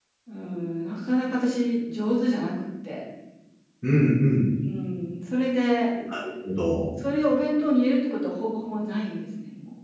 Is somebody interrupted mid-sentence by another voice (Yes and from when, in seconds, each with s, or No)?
No